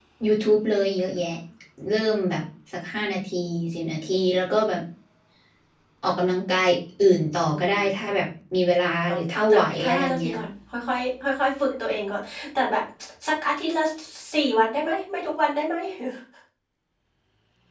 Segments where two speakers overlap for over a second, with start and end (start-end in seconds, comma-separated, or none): 9.1-10.3